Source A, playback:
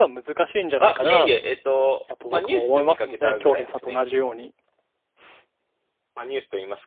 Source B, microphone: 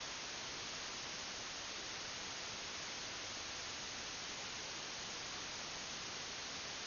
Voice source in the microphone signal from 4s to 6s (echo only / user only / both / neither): neither